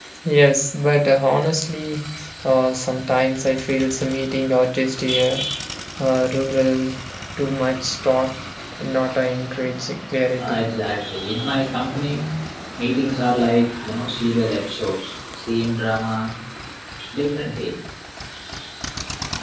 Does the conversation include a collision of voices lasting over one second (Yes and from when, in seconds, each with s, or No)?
No